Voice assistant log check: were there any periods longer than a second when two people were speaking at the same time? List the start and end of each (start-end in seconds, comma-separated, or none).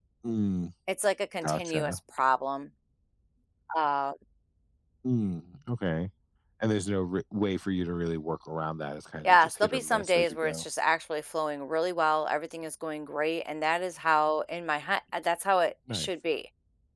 9.2-10.6